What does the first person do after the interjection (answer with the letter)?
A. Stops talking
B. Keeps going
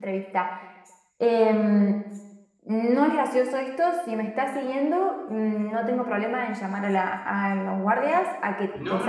A